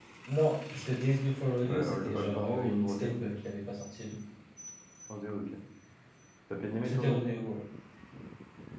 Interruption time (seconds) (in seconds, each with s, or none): 1.7 s